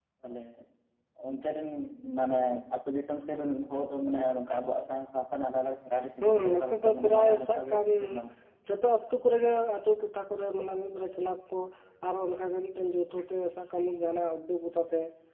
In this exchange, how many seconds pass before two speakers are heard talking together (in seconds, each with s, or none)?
6.2 s